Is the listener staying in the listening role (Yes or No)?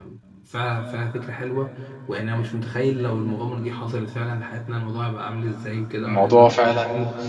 Yes